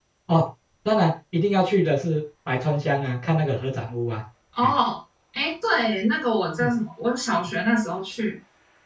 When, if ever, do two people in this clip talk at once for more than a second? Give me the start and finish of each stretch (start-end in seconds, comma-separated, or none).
none